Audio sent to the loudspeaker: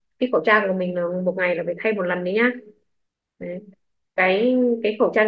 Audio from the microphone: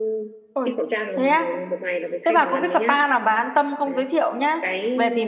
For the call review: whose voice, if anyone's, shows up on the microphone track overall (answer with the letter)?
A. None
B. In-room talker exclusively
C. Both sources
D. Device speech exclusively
C